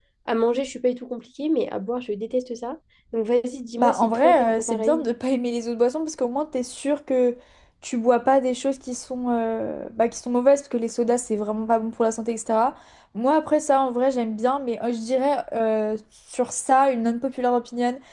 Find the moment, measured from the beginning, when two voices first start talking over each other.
3.8 s

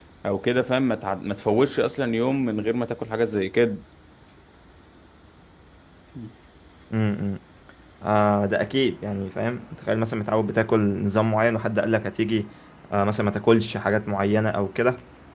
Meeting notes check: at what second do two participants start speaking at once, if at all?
none

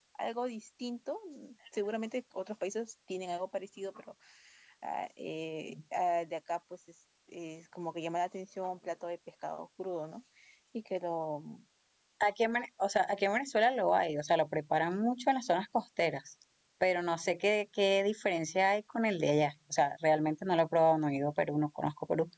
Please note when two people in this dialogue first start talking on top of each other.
none

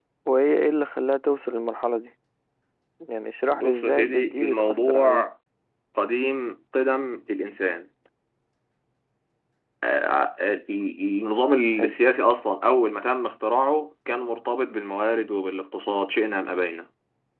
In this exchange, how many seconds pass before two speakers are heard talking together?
3.5 s

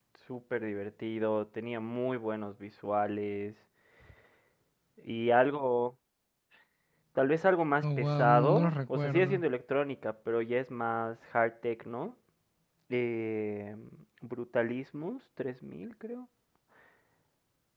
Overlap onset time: 7.8 s

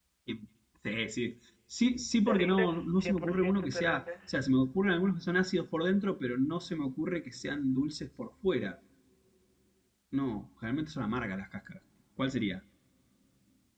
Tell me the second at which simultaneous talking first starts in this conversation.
2.3 s

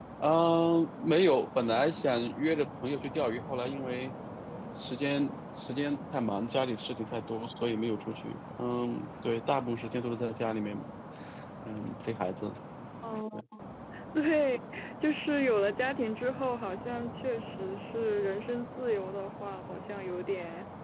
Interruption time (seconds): none

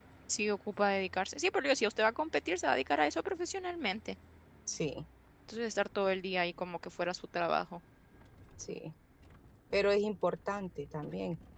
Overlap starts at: none

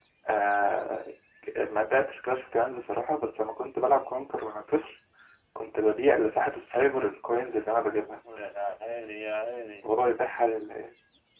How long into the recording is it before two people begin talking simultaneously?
none

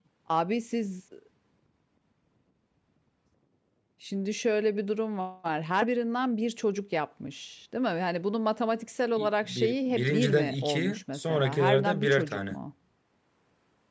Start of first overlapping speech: 9.2 s

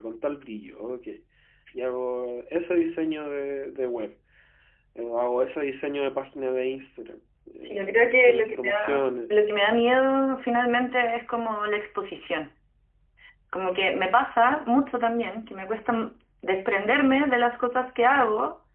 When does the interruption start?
7.6 s

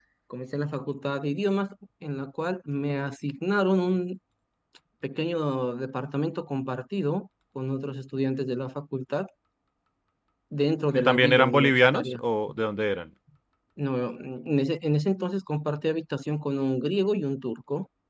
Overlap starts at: 10.9 s

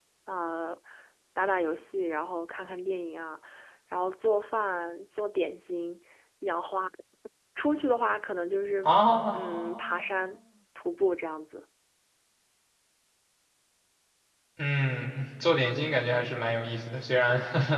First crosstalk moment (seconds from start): none

